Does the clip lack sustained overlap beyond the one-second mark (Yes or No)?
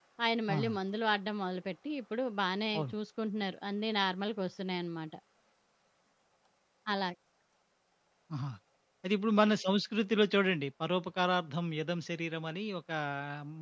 Yes